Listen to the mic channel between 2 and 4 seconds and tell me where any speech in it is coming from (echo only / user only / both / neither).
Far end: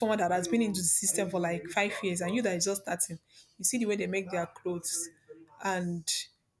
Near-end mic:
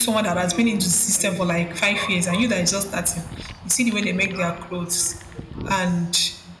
echo only